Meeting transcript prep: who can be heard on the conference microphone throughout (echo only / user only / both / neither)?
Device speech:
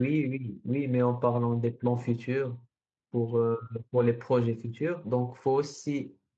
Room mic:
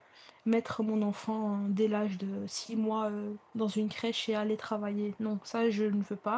user only